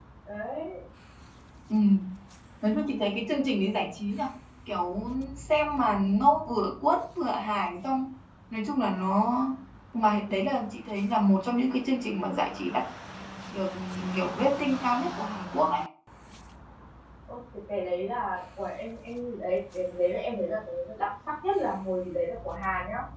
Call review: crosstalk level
none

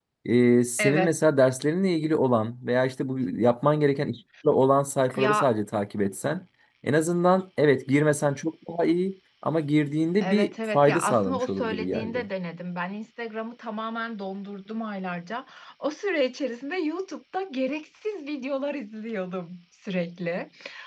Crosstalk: present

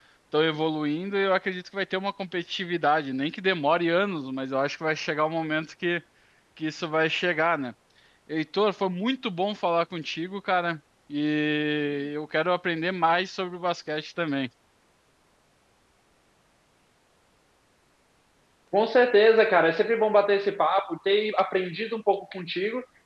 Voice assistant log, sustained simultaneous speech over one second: none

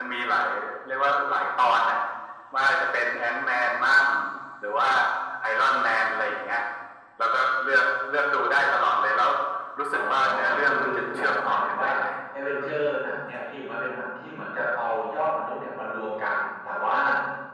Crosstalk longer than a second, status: present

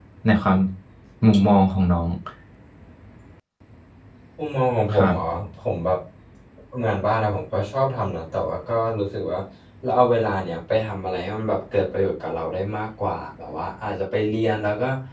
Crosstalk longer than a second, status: none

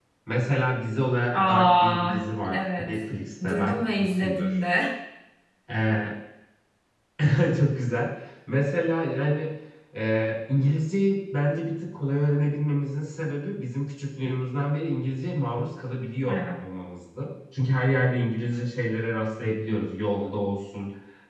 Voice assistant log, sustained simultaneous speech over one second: present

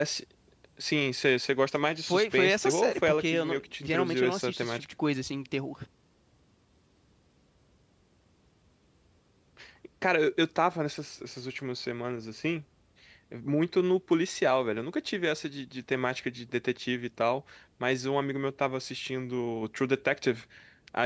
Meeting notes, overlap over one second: present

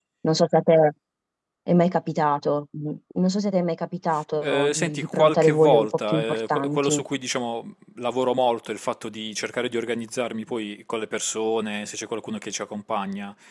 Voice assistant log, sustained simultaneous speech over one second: present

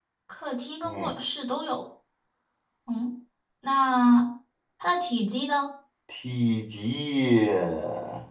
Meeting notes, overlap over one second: none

